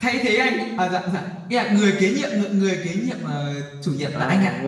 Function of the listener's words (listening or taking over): taking over